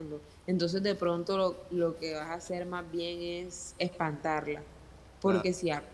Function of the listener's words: listening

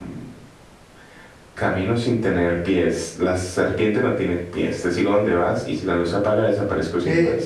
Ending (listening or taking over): taking over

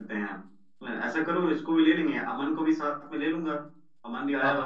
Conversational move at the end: taking over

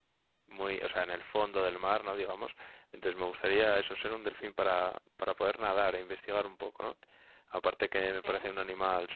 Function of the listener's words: listening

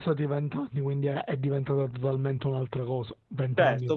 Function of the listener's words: taking over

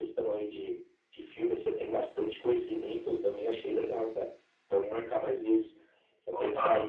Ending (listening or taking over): listening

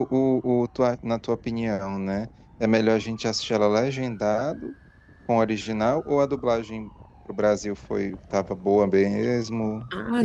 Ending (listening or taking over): taking over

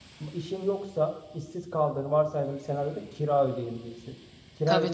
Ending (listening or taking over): listening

